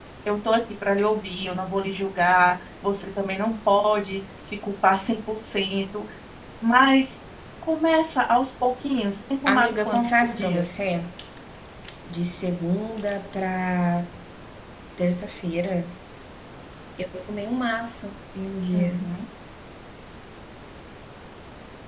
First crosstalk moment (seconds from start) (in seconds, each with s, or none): 9.5 s